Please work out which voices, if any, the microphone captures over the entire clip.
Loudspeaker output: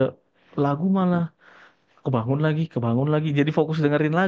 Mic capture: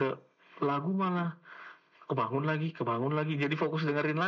echo only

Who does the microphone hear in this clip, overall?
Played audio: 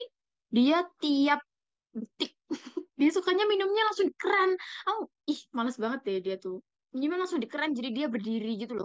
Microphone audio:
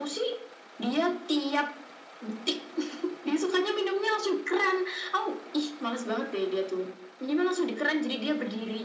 echo only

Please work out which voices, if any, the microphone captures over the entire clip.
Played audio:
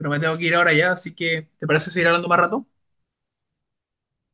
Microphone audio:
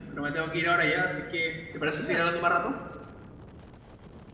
both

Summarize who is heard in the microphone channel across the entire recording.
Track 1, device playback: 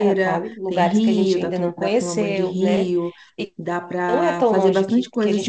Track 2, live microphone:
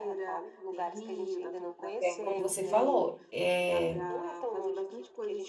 both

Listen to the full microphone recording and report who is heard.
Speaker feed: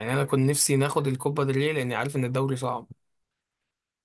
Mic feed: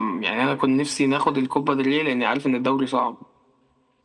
echo only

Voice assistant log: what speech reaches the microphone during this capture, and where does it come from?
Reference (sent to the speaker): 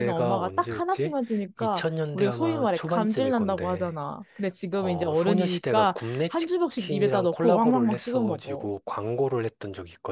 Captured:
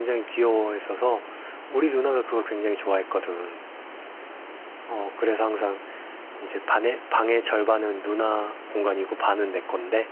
user only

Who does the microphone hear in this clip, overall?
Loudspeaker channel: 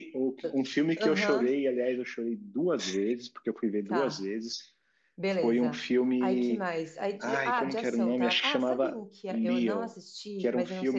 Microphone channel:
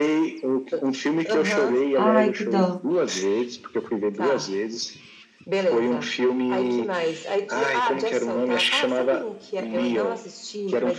both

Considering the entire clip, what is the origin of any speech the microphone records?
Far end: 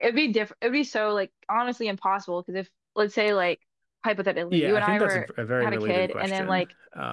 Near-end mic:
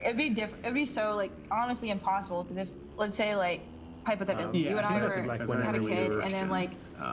both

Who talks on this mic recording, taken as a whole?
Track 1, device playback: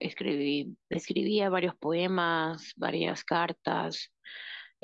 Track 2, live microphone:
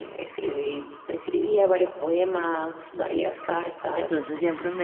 both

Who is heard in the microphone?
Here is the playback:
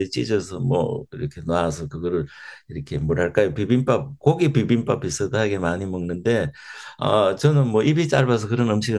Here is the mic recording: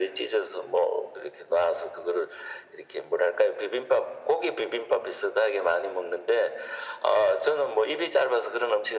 echo only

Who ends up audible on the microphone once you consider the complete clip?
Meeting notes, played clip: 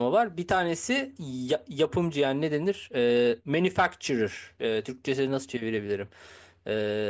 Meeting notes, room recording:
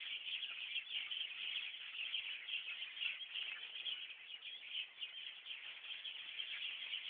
neither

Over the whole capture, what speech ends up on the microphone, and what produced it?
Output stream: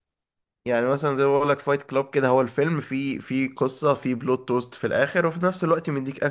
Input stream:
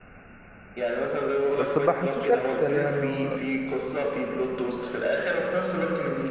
both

